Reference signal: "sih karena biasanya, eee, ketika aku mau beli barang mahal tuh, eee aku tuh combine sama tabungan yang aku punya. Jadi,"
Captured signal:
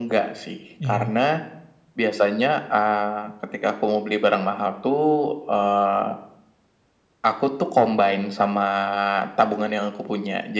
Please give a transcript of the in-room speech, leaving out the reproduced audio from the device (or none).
Iya.